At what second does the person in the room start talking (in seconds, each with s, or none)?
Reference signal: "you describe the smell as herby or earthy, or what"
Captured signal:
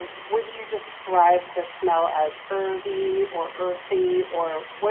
none